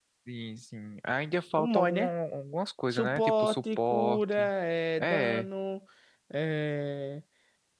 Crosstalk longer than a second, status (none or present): present